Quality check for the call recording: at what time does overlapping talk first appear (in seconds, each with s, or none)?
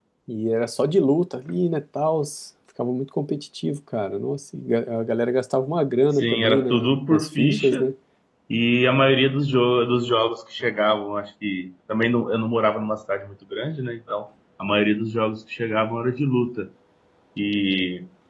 6.1 s